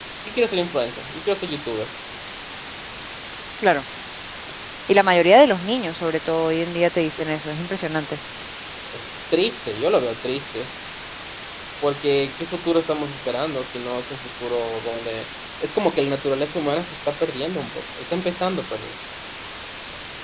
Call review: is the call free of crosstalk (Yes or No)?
Yes